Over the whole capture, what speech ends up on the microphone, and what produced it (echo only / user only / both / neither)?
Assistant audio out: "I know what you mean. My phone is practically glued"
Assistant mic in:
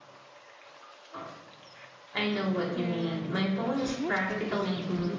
both